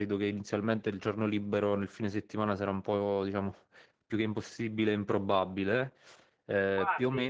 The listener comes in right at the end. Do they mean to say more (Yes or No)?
No